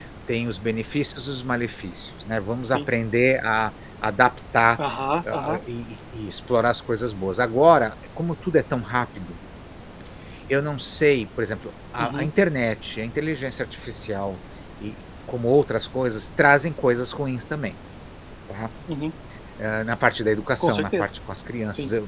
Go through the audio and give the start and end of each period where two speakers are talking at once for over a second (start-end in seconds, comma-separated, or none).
none